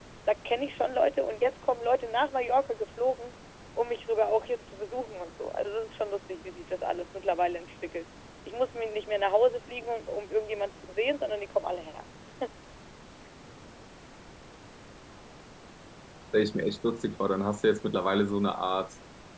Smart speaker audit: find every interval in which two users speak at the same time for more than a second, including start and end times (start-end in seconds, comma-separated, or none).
none